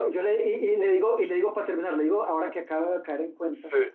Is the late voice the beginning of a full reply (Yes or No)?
No